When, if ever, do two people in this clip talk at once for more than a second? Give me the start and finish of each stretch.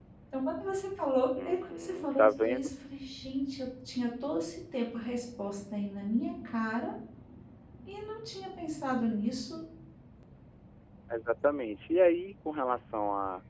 1.4-2.7

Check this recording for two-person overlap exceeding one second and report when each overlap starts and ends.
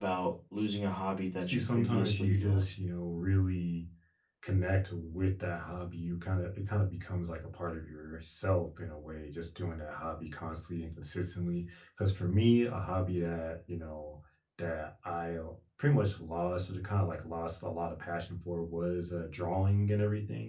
1.4-2.6

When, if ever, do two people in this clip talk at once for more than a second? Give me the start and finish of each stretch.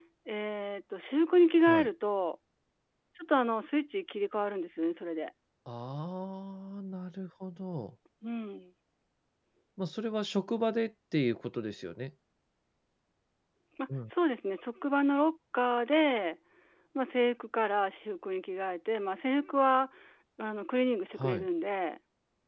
none

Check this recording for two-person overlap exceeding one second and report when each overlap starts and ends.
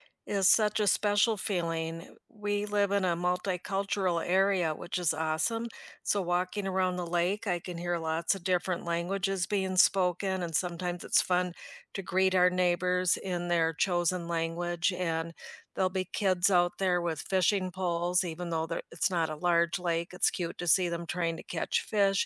none

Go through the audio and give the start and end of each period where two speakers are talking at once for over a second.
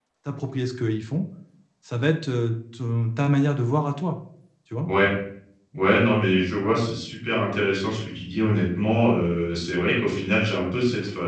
none

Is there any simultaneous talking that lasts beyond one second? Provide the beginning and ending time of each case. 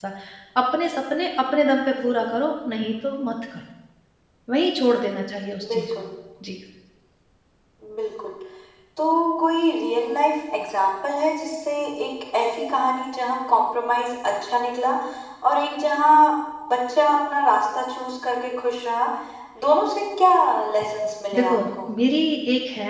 none

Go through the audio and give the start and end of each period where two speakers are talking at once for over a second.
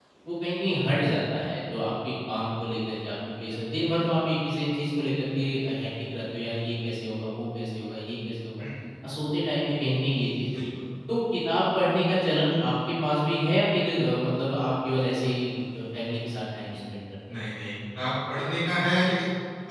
none

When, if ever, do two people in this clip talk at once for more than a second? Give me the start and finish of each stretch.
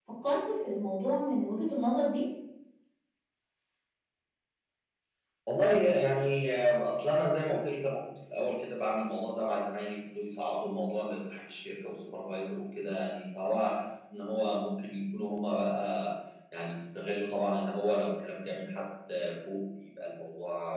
none

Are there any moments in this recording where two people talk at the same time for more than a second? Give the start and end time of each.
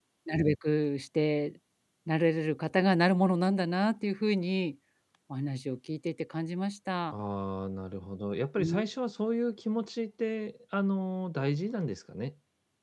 none

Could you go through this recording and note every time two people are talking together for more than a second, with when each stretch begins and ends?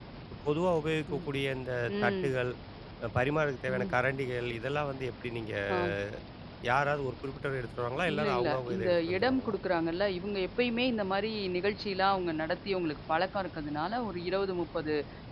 8.2-9.6

